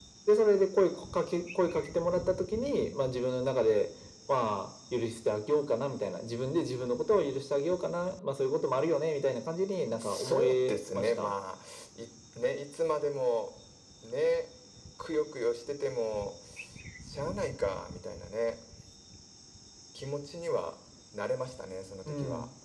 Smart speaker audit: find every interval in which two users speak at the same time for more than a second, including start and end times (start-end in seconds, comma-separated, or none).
10.0-11.3